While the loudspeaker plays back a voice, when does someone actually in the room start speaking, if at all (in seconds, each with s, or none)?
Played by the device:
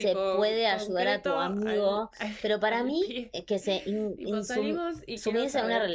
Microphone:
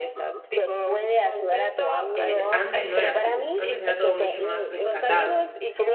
2.1 s